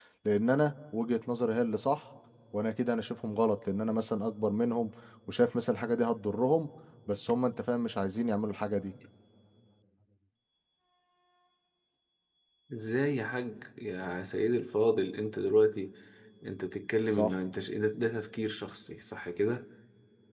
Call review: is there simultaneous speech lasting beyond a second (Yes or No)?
No